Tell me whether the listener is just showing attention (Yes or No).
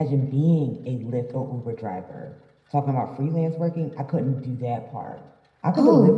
Yes